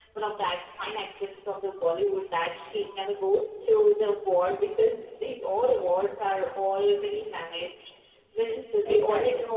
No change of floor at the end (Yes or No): Yes